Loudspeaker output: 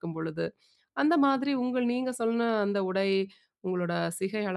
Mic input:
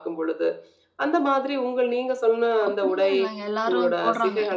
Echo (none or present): present